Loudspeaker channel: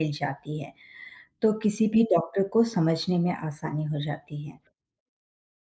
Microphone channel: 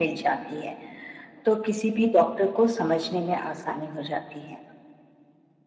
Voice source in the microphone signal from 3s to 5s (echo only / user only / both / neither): echo only